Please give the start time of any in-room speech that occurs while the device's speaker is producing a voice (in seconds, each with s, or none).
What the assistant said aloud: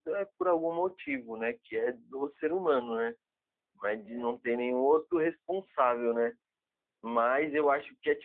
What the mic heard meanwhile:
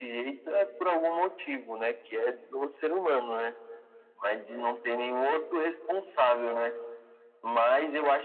none